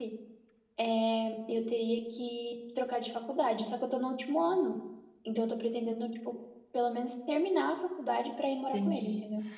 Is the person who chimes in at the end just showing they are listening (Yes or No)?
No